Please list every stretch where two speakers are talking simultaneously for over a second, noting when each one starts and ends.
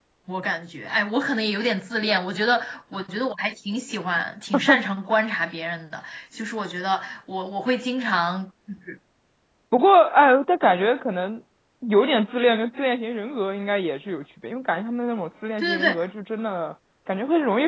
none

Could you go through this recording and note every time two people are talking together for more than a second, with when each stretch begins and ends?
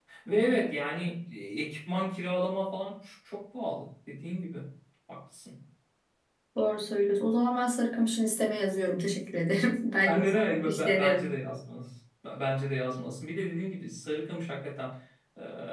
10.1-11.2

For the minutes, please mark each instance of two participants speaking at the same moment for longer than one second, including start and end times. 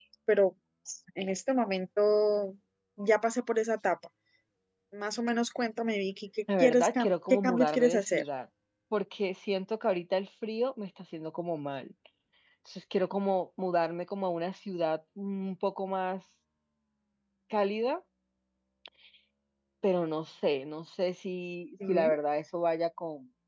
6.6-8.2

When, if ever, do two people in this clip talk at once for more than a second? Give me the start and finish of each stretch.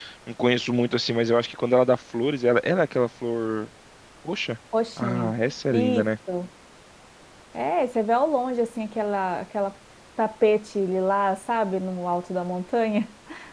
none

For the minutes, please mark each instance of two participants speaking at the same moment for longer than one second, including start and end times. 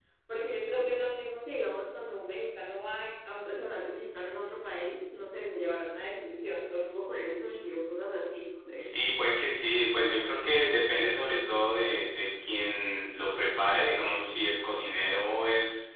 none

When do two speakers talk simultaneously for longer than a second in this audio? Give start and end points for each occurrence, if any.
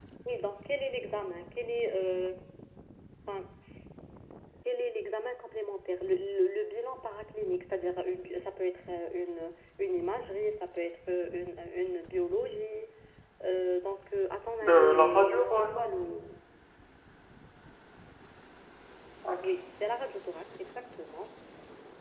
14.7-15.9

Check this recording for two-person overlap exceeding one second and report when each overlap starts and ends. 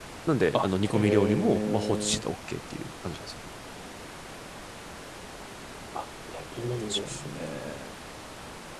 0.9-2.2

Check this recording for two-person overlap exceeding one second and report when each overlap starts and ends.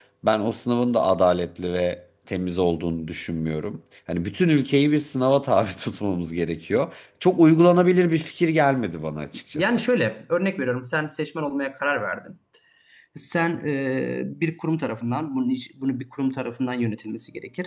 none

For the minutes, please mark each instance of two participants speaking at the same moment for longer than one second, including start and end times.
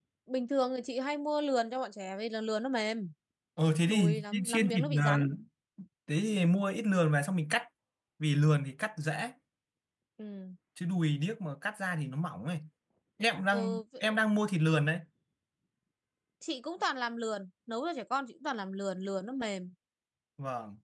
3.9-5.2

